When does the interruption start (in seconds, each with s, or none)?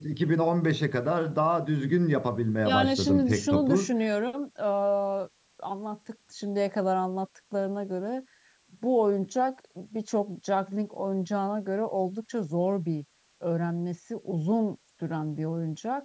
2.6 s